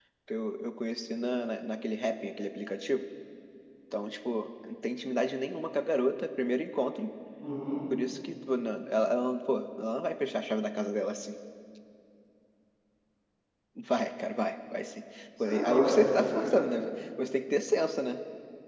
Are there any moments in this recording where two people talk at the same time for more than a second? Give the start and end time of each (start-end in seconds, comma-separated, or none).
15.4-16.7